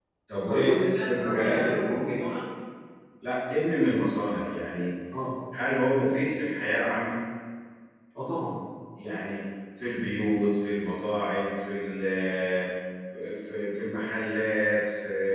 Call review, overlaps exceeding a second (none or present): present